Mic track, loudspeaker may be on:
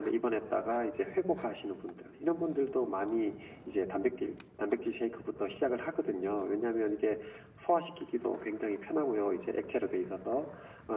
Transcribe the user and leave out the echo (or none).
none